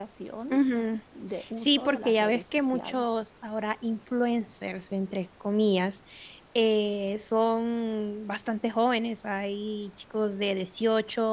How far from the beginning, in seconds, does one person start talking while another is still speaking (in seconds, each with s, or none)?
1.6 s